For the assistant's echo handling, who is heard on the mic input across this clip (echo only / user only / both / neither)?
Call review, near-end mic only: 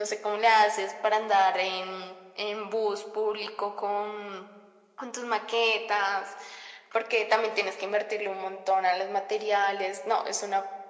echo only